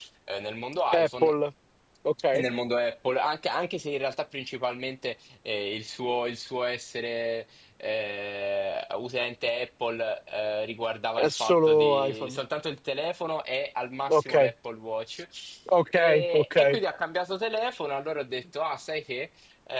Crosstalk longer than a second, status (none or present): present